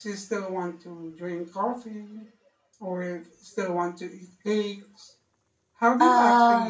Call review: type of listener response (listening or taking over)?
listening